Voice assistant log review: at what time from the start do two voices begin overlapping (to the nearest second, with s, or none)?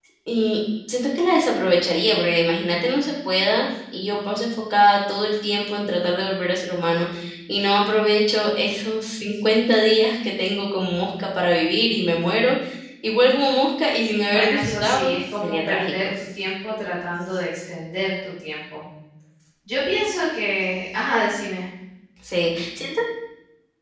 14 s